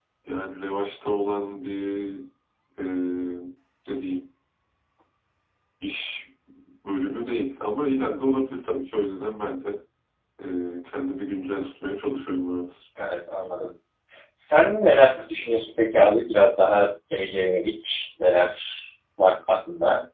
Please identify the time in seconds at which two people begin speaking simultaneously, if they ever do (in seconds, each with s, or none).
none